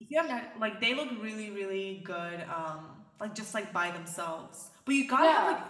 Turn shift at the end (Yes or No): No